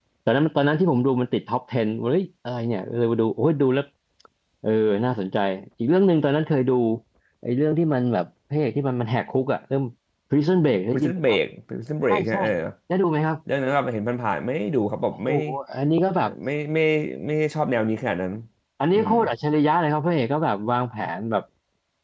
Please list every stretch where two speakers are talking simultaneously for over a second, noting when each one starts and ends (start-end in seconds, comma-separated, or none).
none